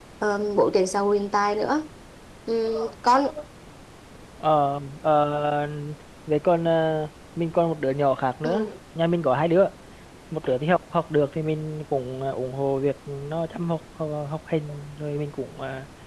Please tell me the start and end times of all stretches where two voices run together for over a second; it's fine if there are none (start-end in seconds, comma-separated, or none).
none